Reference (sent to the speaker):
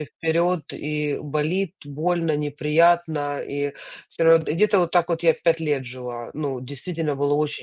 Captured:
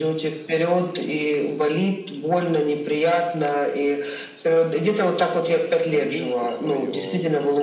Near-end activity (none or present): present